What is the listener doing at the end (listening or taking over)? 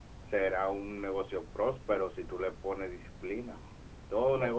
listening